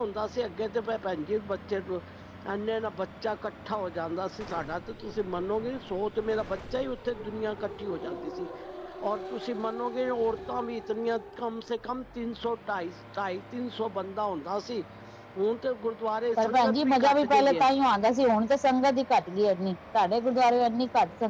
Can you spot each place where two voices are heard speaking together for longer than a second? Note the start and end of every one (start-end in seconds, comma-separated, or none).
16.4-17.6